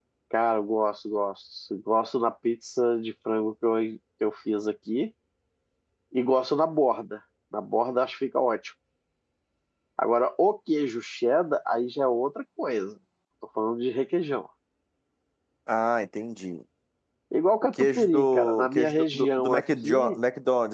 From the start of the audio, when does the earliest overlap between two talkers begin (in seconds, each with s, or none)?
17.8 s